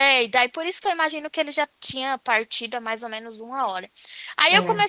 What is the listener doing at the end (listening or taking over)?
listening